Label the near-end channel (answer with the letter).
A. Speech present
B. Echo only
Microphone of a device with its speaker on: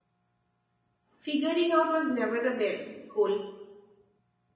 A